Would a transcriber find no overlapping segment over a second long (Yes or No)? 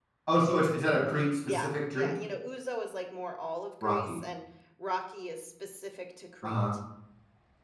No